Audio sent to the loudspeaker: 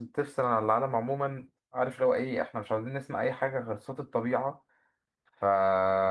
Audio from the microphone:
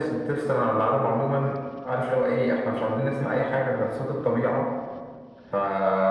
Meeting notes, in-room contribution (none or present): none